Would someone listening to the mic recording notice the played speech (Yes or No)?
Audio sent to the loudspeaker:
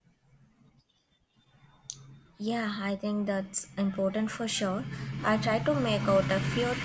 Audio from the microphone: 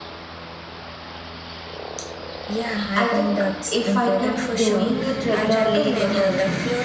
Yes